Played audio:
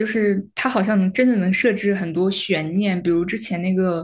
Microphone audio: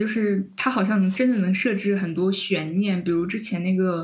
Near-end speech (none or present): none